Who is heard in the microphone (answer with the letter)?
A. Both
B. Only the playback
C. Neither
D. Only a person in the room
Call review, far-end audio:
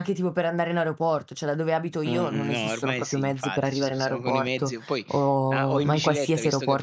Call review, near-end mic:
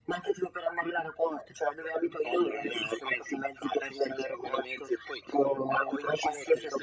B